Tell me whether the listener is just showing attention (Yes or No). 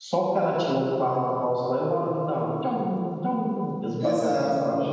No